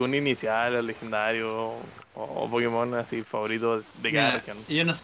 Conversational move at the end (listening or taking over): taking over